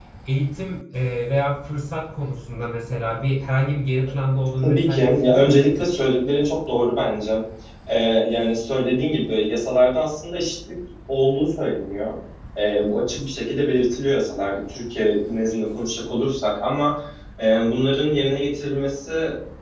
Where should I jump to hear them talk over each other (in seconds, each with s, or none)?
4.6 s